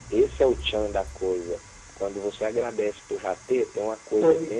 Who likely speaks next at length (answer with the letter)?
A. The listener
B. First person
B